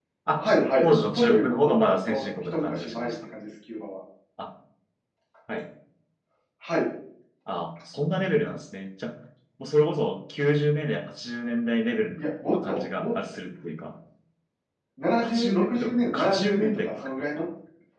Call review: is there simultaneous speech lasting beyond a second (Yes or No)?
Yes